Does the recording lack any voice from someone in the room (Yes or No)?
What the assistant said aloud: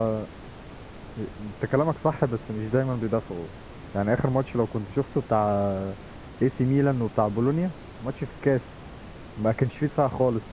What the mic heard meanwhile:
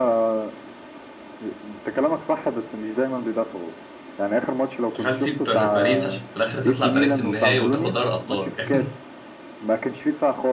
No